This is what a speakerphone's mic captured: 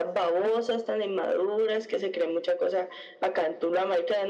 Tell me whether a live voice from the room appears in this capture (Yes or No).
No